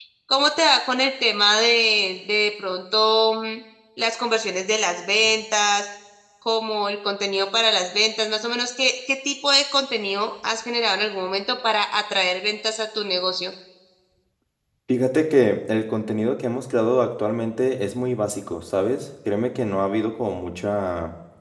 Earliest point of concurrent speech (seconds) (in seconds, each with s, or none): none